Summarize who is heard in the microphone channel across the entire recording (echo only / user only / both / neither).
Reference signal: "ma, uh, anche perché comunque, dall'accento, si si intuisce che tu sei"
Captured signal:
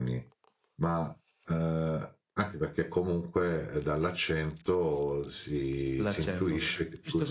both